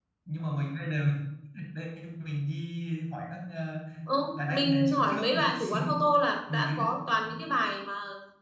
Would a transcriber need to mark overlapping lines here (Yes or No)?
Yes